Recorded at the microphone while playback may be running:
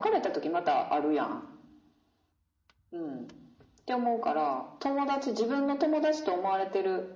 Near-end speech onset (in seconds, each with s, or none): none